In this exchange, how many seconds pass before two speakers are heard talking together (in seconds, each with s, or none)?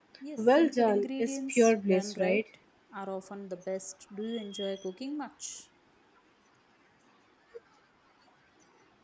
0.6 s